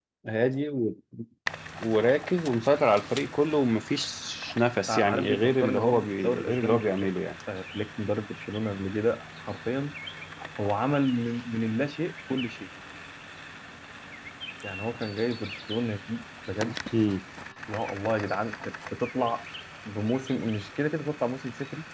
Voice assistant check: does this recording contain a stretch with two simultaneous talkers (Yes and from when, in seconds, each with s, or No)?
Yes, from 4.9 s